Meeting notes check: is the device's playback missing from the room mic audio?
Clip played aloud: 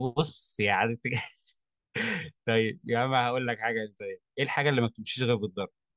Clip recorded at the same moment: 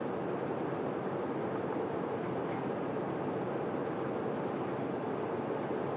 Yes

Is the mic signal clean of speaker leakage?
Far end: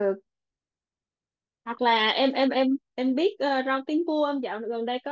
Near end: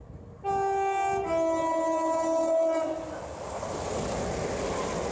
Yes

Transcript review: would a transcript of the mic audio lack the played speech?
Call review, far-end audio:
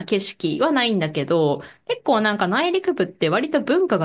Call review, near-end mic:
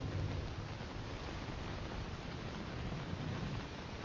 Yes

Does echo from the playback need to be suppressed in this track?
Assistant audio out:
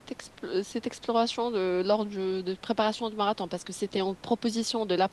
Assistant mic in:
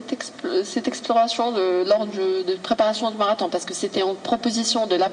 Yes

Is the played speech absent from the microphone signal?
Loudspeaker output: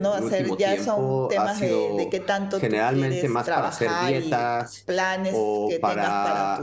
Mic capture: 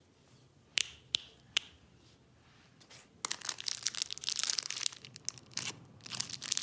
Yes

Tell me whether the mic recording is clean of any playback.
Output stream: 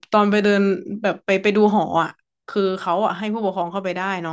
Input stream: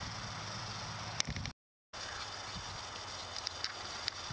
Yes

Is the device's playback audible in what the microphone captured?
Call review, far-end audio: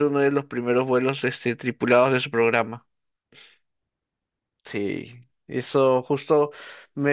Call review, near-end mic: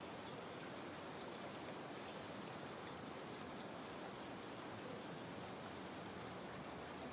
No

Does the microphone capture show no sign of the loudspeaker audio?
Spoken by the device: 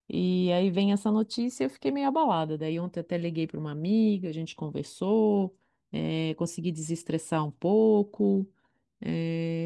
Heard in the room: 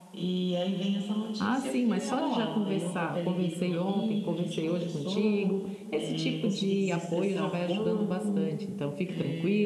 No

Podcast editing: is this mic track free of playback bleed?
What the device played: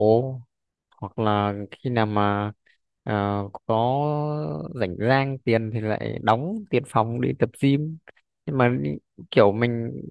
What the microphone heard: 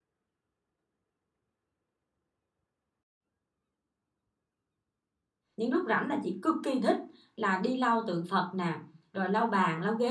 Yes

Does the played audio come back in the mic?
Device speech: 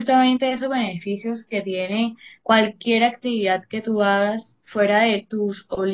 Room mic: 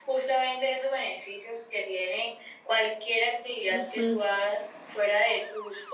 Yes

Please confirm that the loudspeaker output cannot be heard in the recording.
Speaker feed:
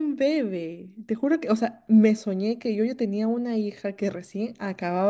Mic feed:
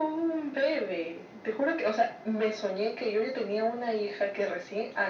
No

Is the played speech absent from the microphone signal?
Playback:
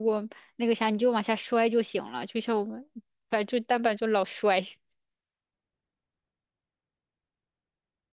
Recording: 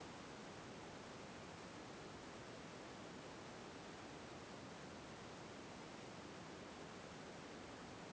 Yes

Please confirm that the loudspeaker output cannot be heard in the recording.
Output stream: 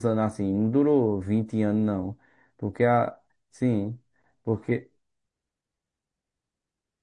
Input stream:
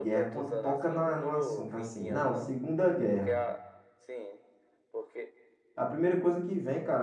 No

